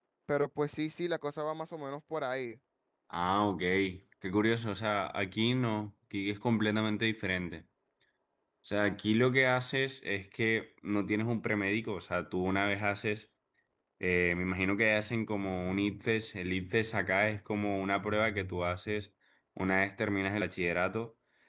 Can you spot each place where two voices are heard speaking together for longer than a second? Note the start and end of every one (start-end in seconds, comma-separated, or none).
none